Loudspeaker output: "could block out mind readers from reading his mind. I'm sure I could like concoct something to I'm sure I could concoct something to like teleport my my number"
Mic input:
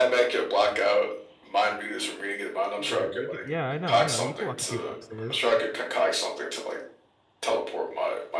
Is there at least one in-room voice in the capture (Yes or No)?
Yes